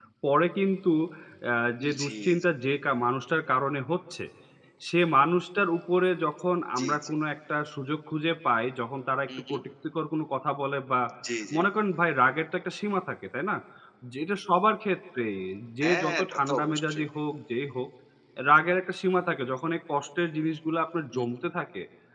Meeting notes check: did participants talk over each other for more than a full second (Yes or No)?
Yes